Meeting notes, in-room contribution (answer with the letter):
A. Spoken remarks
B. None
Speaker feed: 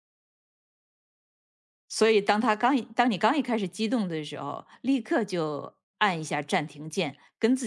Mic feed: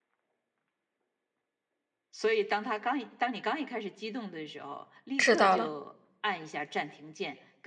A